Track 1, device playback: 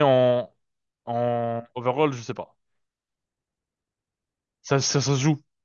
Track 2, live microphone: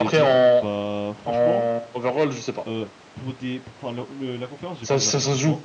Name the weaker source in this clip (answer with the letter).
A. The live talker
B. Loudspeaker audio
A